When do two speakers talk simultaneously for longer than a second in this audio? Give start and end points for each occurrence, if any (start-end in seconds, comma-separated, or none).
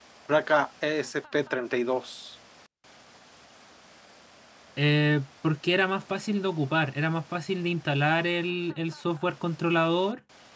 none